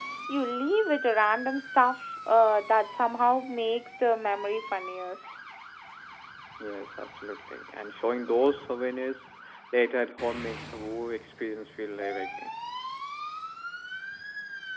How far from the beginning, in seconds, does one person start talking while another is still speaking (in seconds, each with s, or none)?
none